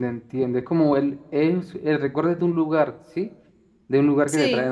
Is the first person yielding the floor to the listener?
No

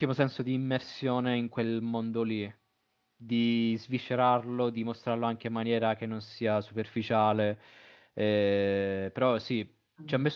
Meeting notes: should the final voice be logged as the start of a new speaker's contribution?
No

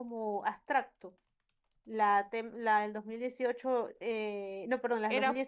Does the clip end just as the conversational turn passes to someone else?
No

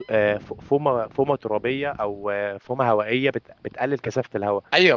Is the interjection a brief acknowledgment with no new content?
No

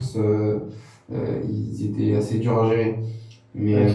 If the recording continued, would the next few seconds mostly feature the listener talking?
No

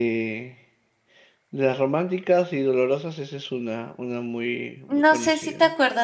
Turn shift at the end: Yes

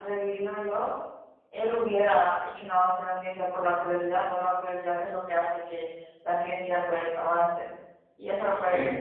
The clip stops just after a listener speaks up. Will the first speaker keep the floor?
Yes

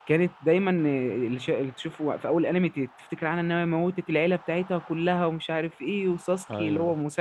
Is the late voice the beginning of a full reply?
No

